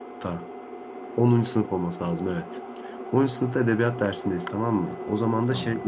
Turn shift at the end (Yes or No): No